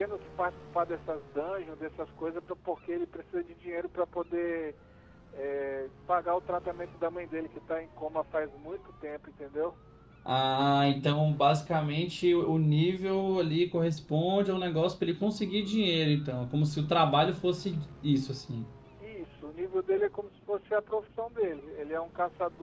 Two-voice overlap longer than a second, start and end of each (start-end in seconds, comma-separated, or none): none